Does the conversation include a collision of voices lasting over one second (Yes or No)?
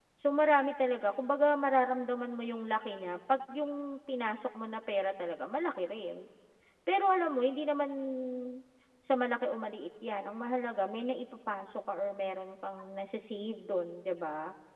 No